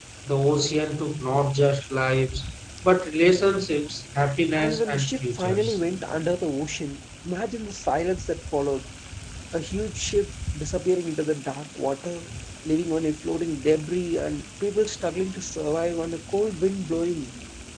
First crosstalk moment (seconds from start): 4.5 s

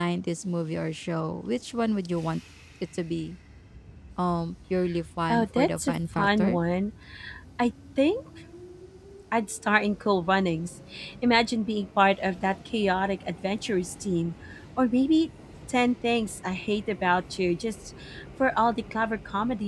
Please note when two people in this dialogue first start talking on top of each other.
5.3 s

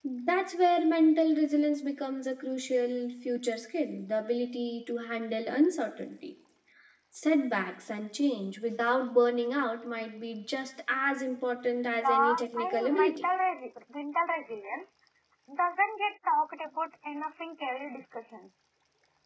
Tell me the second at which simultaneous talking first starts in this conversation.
12.0 s

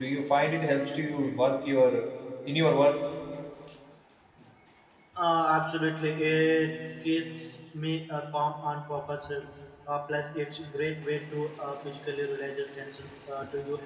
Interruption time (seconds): none

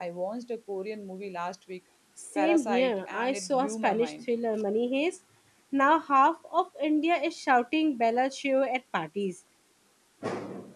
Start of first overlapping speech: 2.4 s

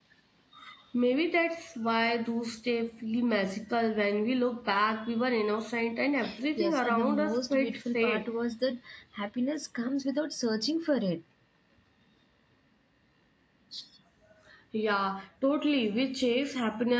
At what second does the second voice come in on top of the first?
6.6 s

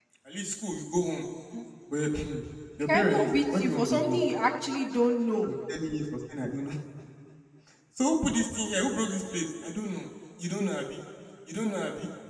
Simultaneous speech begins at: 2.8 s

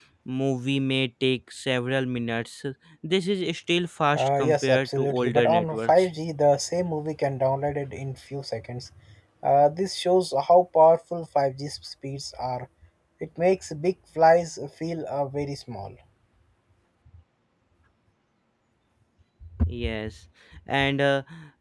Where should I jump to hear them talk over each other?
4.1 s

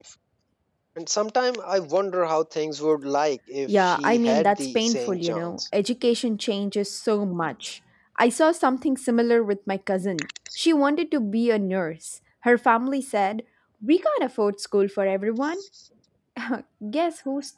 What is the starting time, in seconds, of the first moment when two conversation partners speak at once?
3.8 s

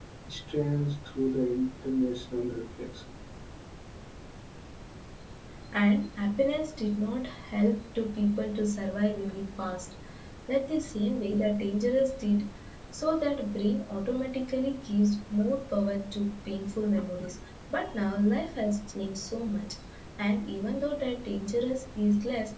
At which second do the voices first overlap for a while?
none

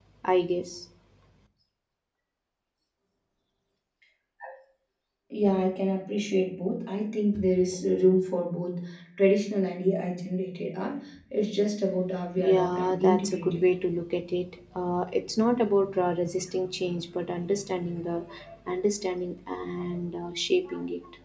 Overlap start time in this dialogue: 12.4 s

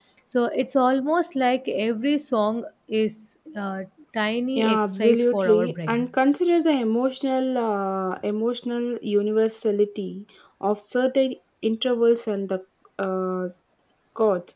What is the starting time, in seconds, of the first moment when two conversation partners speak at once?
4.6 s

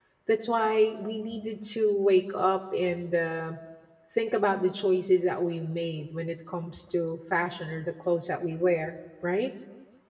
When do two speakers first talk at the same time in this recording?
none

